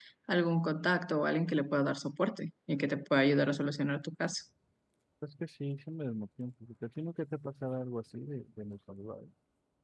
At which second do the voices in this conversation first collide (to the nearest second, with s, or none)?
none